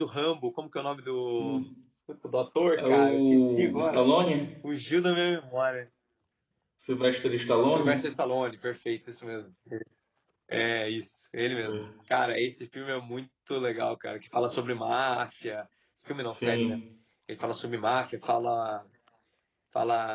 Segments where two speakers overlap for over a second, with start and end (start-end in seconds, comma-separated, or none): 2.8-4.0